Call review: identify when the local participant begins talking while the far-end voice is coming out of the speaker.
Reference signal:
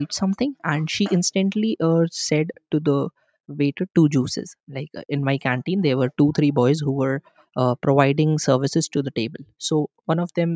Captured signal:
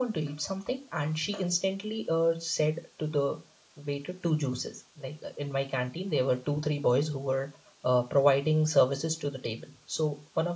none

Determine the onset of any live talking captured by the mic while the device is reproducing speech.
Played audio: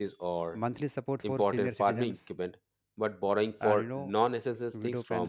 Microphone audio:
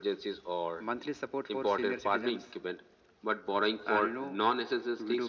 none

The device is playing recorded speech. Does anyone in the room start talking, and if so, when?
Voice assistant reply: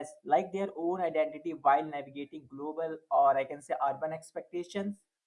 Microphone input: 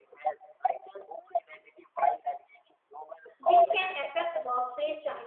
3.4 s

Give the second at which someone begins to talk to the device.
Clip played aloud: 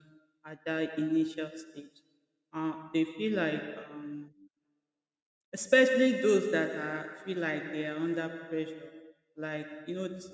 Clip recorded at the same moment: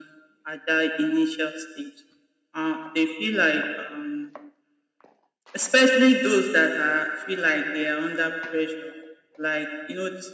none

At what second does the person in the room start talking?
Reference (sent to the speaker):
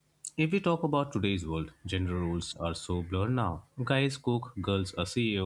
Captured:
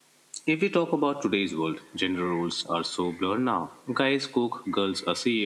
none

